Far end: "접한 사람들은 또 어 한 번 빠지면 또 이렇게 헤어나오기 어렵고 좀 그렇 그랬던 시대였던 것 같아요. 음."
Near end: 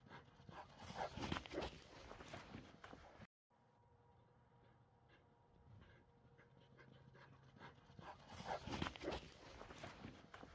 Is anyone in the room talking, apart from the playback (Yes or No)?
No